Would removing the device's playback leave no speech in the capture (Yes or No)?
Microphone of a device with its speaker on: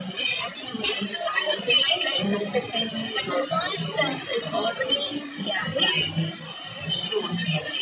Yes